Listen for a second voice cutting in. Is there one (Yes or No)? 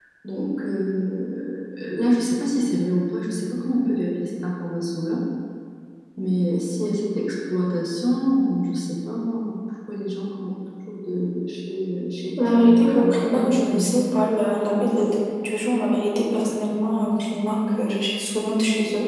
Yes